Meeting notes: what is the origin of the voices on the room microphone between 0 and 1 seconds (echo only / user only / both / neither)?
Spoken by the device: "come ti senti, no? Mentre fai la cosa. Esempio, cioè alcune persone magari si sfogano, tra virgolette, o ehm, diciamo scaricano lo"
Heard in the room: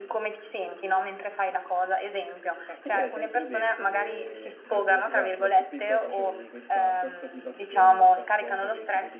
echo only